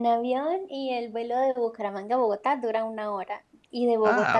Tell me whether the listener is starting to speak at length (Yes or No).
No